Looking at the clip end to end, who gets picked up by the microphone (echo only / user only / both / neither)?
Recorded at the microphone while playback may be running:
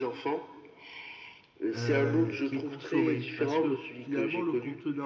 both